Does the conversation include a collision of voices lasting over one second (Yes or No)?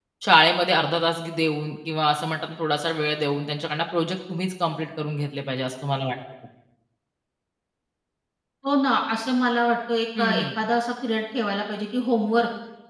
No